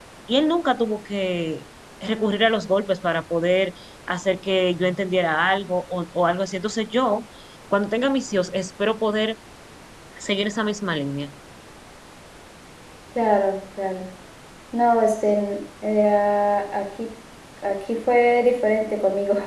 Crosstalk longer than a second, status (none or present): none